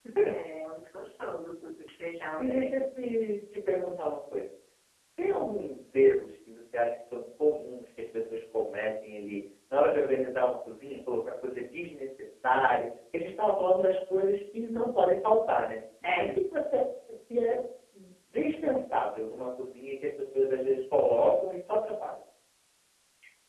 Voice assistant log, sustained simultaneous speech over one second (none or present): none